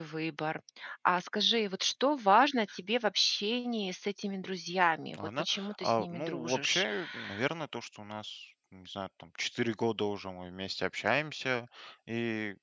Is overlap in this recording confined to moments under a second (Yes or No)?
No